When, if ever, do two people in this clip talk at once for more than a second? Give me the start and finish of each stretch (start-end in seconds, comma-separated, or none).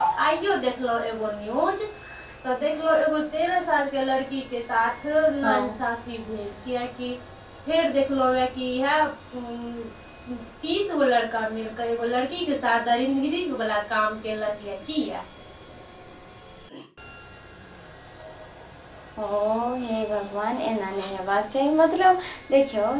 none